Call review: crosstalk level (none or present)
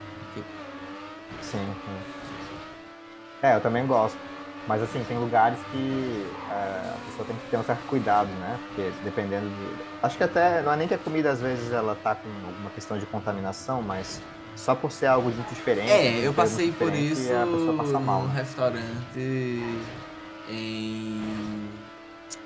present